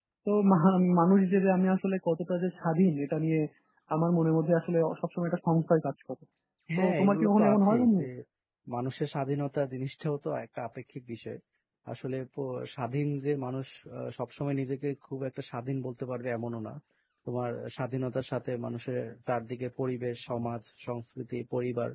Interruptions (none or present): present